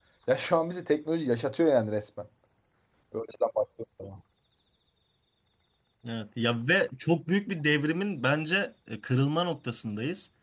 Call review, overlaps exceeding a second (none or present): none